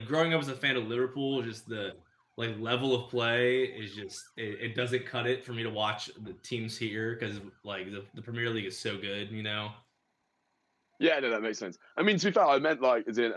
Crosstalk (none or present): none